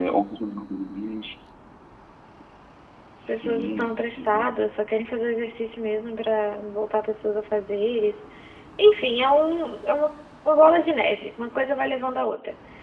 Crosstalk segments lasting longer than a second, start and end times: 3.3-4.6

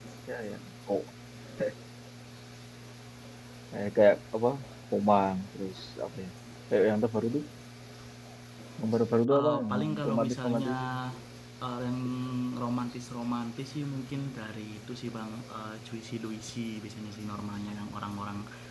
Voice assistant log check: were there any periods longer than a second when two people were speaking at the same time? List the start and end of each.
9.3-10.7

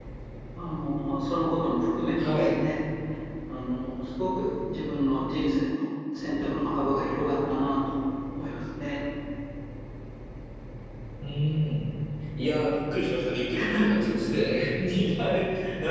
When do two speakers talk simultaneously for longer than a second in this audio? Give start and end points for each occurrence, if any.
none

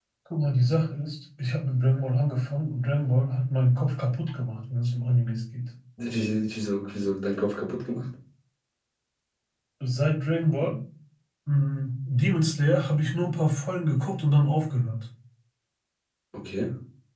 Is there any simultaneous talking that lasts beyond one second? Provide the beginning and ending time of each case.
none

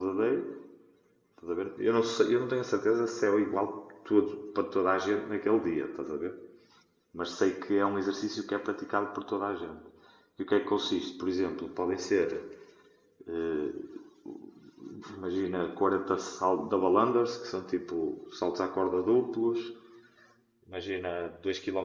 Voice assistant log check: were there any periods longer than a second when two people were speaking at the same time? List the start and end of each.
none

